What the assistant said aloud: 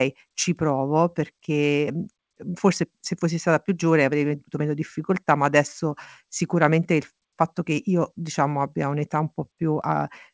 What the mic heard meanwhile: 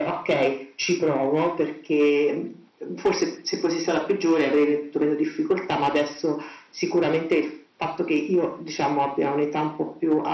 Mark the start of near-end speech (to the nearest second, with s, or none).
none